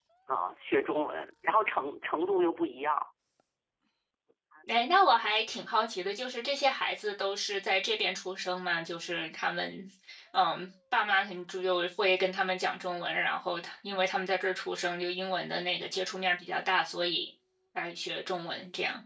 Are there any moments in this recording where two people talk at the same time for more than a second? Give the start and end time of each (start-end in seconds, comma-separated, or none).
none